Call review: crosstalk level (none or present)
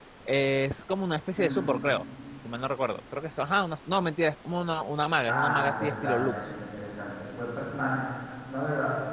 present